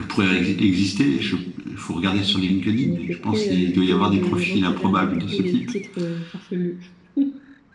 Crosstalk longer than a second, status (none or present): present